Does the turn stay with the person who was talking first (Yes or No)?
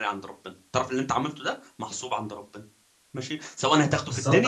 No